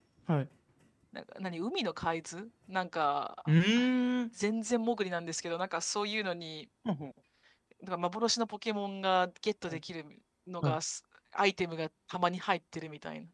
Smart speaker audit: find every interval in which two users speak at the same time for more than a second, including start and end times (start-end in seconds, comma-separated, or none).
none